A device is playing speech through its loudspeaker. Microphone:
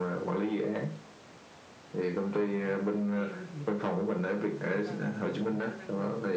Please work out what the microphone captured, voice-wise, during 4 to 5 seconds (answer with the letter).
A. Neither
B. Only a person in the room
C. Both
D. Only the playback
C